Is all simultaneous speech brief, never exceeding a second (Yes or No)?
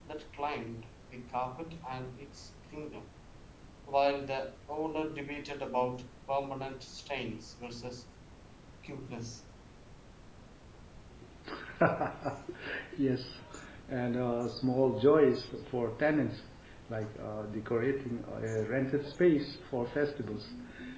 Yes